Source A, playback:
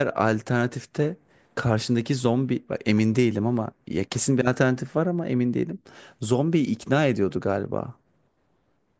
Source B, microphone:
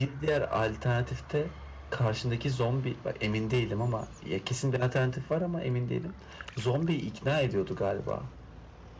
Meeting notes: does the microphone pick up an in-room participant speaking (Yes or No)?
No